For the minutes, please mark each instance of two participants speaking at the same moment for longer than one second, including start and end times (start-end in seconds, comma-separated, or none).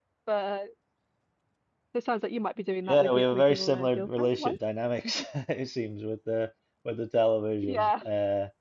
2.9-4.6